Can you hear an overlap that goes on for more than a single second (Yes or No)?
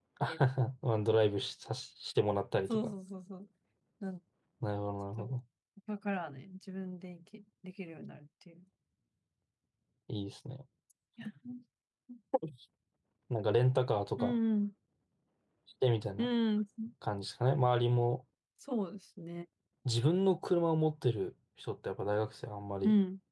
No